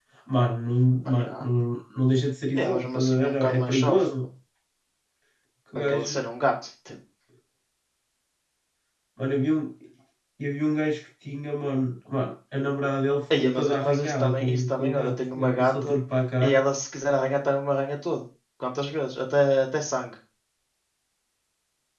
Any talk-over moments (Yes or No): Yes